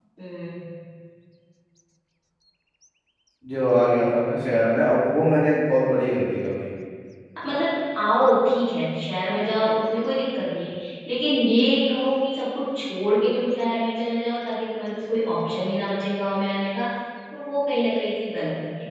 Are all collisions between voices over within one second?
Yes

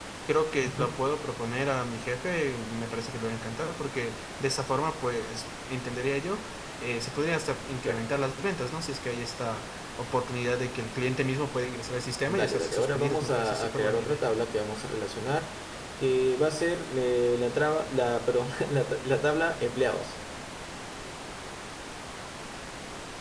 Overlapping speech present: Yes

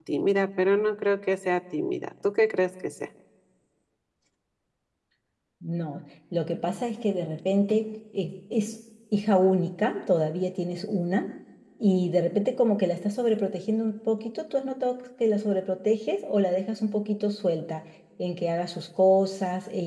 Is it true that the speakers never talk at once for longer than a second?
Yes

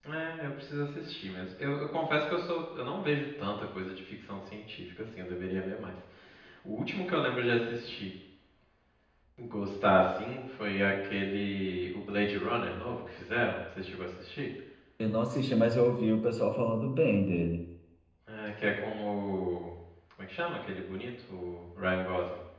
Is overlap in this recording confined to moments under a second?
Yes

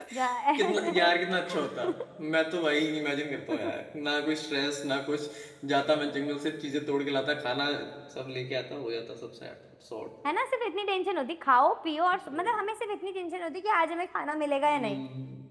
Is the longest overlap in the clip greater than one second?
No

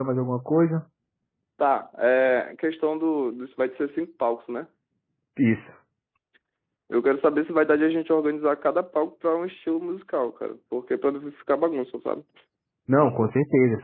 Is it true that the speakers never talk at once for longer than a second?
Yes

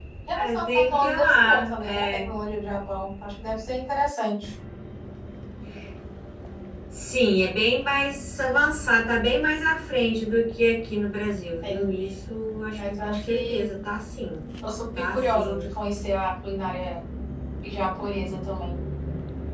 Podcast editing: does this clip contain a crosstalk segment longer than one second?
Yes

